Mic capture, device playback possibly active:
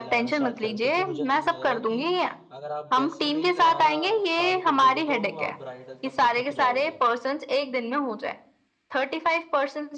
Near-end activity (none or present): present